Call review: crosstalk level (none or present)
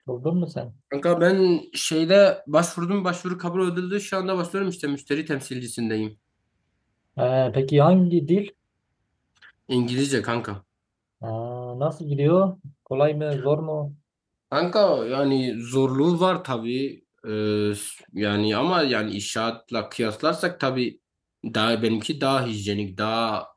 none